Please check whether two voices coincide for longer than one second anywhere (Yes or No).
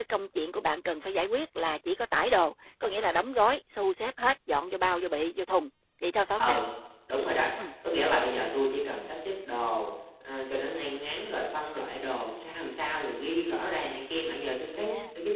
No